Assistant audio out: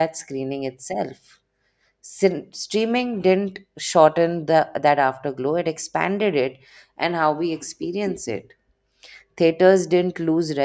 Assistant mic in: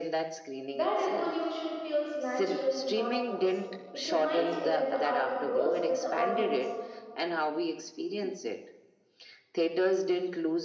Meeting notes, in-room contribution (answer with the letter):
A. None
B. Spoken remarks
B